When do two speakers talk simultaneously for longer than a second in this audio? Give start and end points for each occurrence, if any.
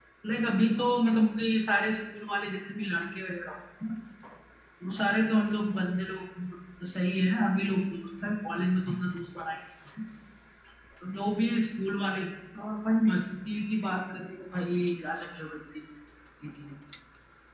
none

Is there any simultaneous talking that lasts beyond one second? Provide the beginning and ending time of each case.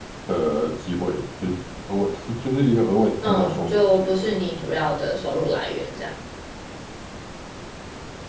3.2-4.8

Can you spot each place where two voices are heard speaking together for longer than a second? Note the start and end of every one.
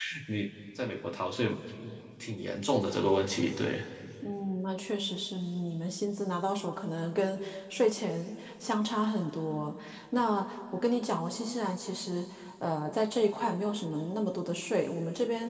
none

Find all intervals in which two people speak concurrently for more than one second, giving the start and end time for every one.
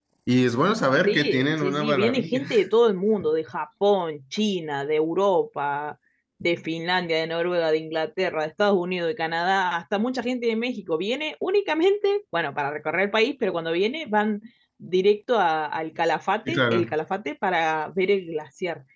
1.1-2.4

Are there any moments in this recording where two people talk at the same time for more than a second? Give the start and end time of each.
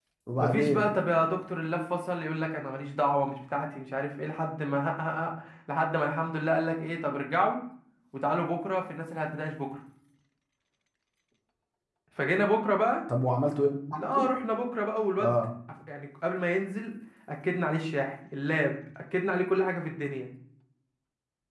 none

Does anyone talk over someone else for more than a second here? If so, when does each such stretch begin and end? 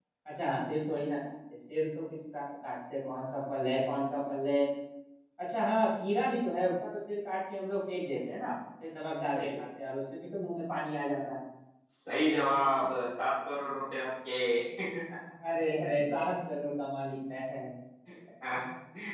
none

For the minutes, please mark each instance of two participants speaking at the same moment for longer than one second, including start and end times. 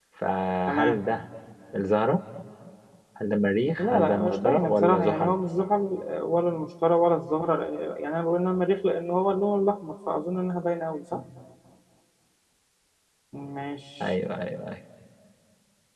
3.8-5.3

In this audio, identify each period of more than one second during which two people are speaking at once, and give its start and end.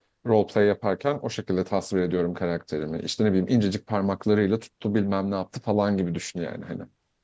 none

